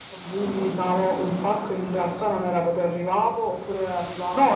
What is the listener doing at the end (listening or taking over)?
taking over